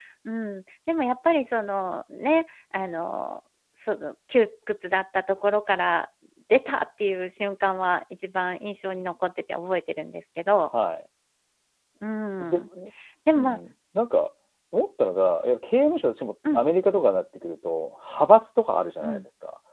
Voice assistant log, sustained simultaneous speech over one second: none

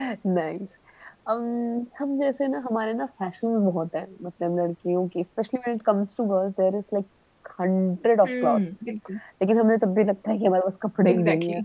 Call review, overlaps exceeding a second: none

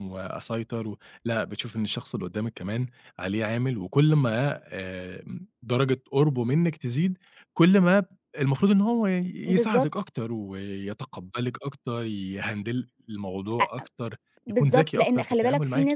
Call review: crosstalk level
present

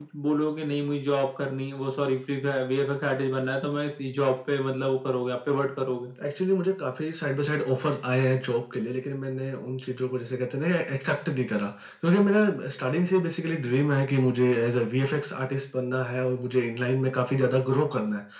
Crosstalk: none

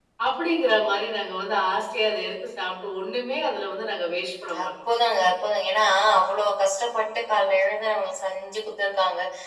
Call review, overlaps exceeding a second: none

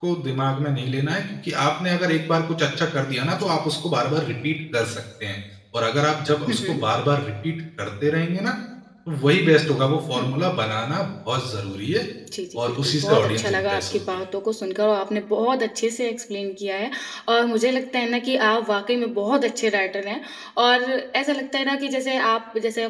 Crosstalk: present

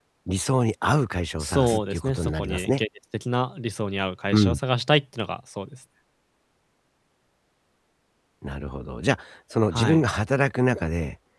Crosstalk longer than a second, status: present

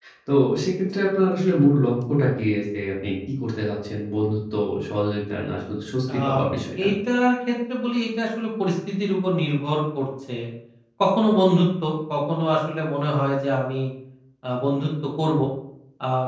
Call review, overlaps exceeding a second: none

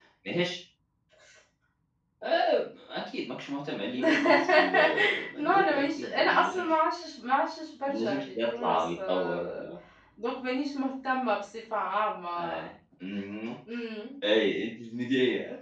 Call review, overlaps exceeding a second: present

